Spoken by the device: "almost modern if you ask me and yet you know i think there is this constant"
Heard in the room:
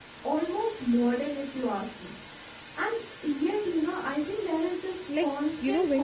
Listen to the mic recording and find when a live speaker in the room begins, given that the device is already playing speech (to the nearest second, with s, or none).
5 s